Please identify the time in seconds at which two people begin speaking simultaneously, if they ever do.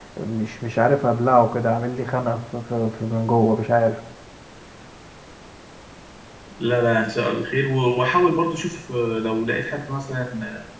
none

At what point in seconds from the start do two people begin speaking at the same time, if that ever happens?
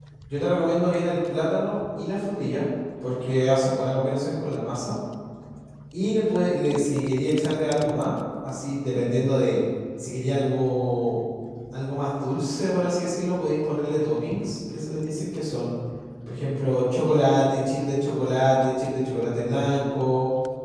none

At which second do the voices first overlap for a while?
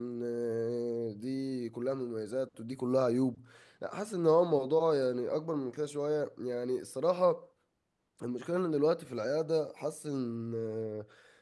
none

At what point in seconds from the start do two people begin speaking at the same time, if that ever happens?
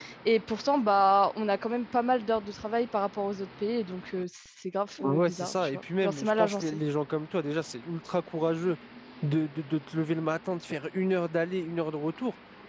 5.0 s

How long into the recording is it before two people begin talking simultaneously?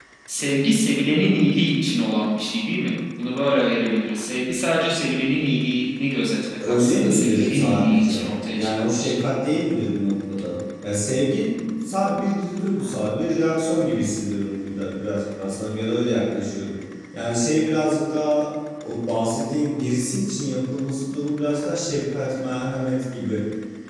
6.6 s

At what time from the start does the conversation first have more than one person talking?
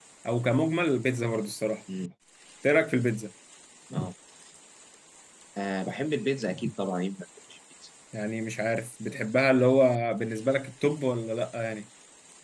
none

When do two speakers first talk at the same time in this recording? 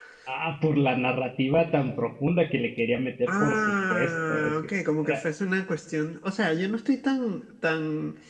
3.3 s

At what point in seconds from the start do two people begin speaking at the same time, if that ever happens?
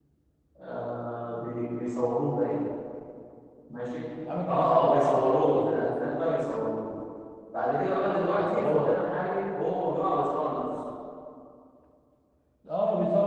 4.5 s

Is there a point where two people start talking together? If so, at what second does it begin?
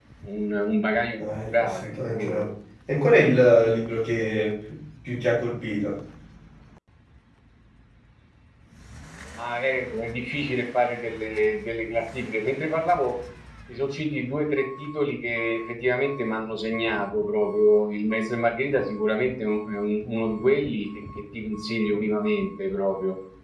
1.2 s

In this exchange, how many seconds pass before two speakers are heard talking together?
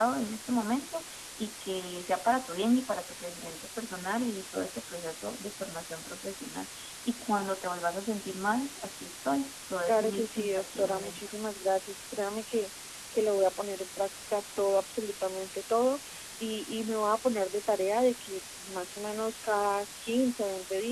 9.9 s

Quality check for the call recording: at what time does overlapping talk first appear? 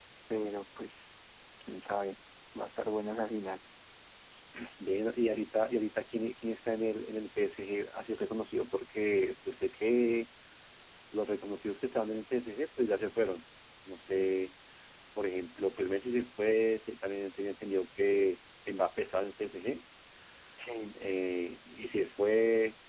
none

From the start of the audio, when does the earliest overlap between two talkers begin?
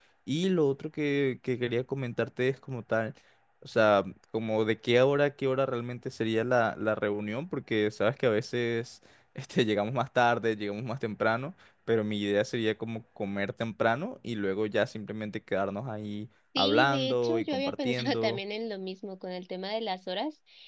16.6 s

